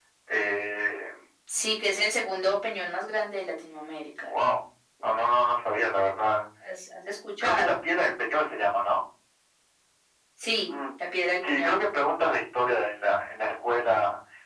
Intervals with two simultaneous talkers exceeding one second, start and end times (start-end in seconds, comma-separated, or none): none